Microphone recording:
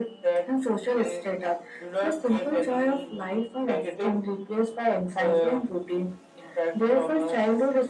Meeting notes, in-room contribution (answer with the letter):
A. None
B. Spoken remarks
A